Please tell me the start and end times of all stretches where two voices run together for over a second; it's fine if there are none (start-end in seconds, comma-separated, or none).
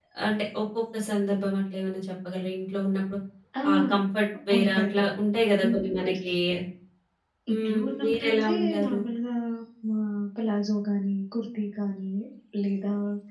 7.5-9.0